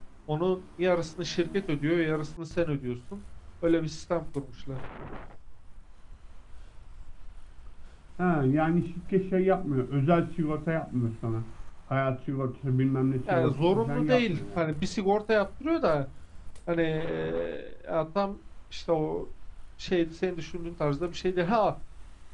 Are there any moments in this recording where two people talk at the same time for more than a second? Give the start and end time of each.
13.3-14.7

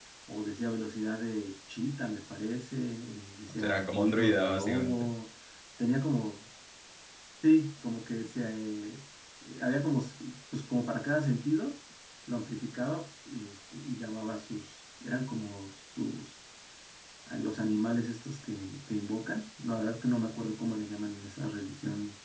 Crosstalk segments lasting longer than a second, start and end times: 3.6-5.1

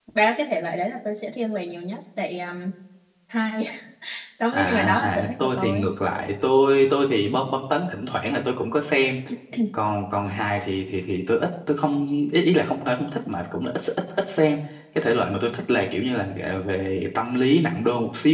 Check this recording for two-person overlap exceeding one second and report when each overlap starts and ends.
4.5-5.8

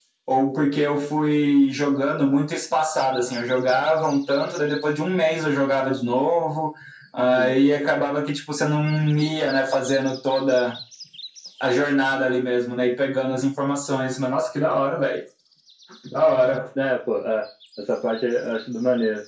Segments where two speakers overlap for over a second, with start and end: none

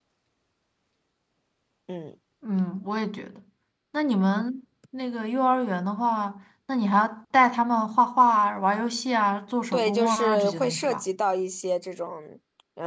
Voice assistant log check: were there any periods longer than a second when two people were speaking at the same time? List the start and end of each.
9.7-11.0

